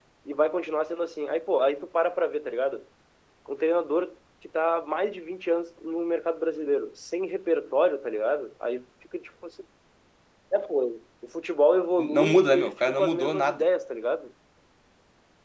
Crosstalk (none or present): present